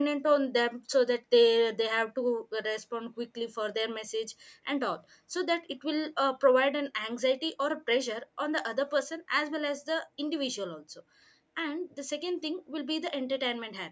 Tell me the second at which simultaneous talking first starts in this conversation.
none

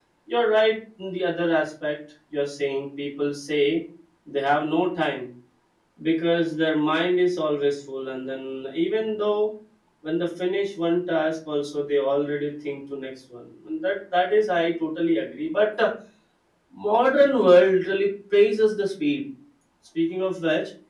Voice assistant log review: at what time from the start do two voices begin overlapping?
none

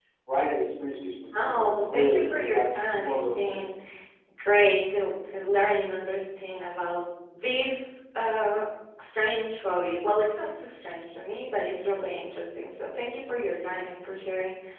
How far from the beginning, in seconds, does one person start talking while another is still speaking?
1.3 s

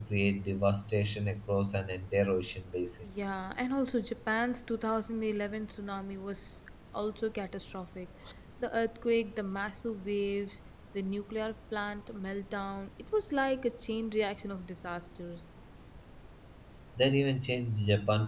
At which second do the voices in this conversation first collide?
none

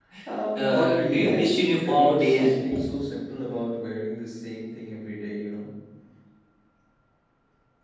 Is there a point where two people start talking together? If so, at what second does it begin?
0.6 s

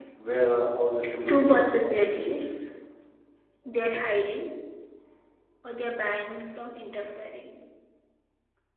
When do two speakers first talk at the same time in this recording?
1.3 s

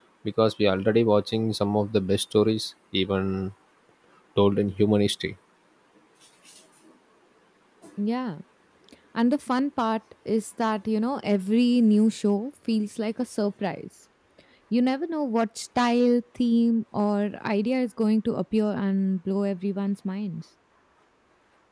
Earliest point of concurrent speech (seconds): none

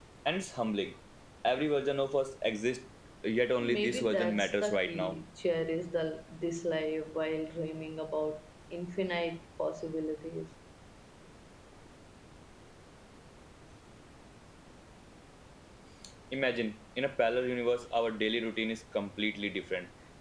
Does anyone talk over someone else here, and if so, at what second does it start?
3.6 s

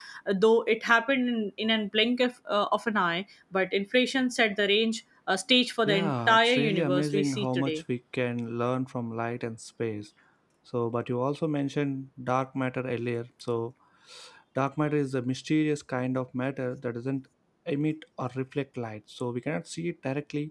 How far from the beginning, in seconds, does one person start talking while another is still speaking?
5.8 s

